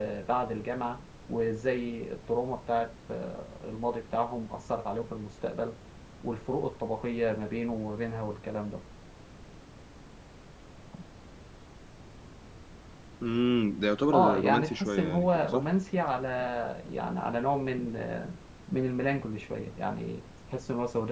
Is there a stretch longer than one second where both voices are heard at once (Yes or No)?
Yes